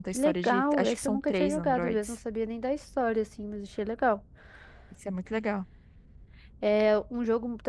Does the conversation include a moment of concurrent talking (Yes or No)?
Yes